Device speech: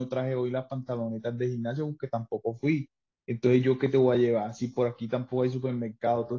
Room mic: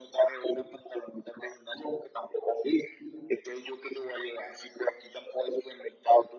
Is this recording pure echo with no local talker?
Yes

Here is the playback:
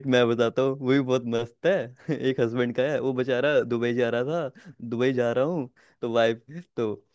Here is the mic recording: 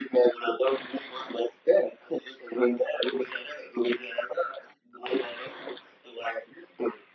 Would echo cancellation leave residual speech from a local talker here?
No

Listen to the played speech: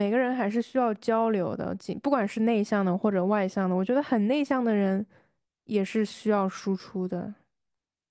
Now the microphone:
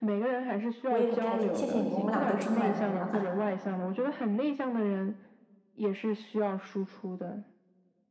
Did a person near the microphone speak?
Yes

